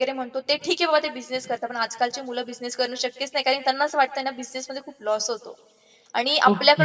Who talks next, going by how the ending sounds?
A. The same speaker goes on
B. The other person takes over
A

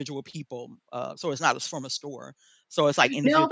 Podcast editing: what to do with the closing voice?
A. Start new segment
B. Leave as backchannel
A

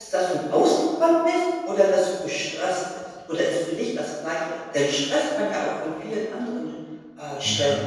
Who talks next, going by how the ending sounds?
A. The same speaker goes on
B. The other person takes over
B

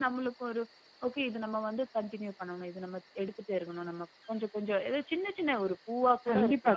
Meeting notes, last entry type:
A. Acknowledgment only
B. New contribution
B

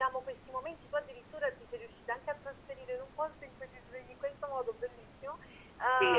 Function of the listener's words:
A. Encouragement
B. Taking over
B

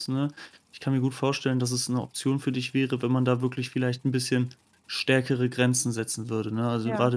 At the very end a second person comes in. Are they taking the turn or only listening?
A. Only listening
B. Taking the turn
A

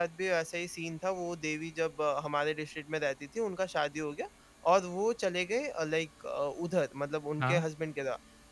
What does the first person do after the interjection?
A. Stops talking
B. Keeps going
B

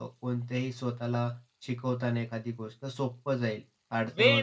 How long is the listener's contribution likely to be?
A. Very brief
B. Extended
B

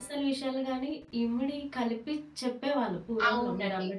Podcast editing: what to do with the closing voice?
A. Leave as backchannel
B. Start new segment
B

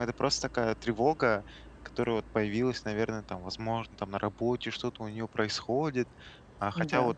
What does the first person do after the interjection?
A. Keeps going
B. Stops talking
A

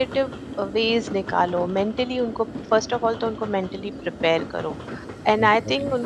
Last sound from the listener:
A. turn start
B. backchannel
B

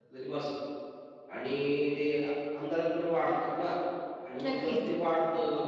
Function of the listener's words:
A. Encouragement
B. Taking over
A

